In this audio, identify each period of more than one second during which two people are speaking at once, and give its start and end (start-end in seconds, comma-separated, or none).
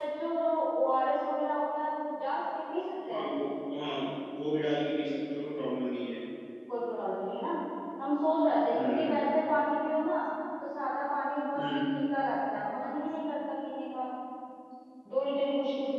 none